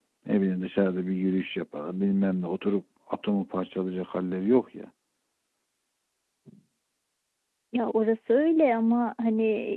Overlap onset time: none

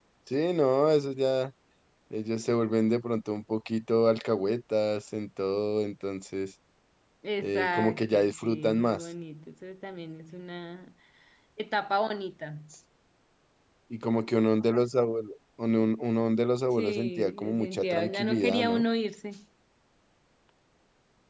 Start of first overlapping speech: 7.4 s

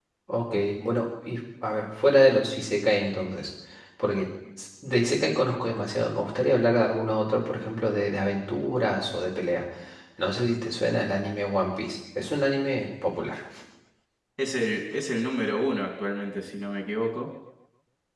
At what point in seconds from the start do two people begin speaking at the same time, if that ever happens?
none

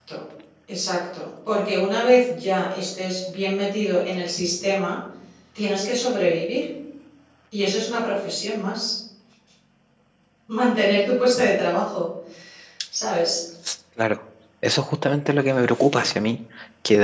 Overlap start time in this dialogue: none

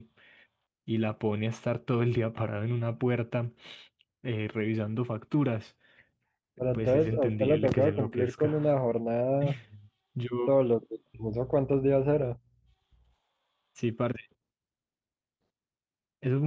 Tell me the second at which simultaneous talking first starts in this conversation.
6.7 s

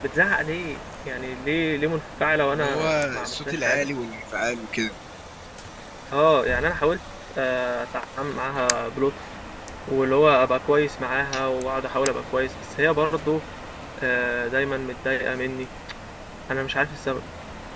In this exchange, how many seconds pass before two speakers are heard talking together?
2.5 s

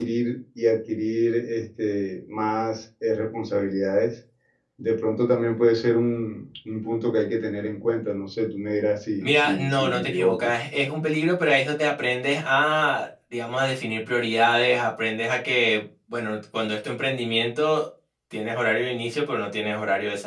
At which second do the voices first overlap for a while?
9.2 s

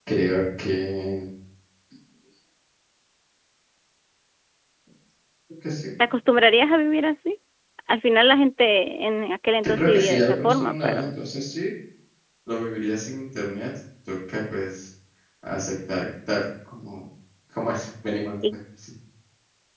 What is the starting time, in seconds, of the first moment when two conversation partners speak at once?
9.8 s

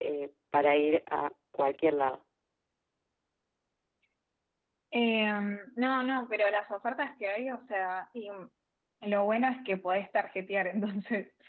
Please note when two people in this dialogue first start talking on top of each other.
none

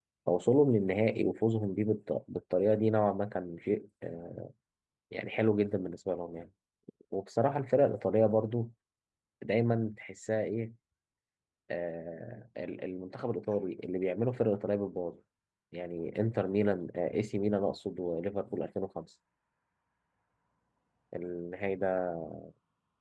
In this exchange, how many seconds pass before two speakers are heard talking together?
none

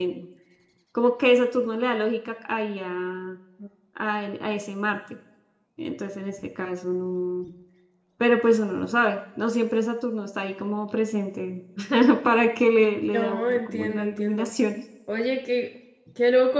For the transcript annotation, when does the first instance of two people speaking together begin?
13.1 s

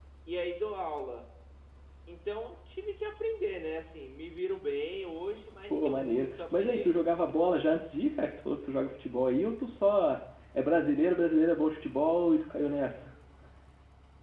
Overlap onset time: 5.7 s

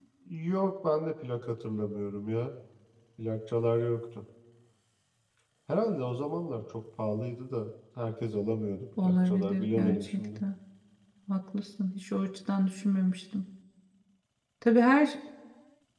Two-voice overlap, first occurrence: 9.0 s

